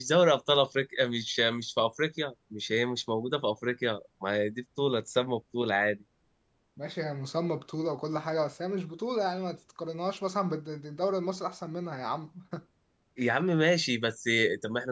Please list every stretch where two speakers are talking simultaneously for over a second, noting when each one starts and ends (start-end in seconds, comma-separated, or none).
none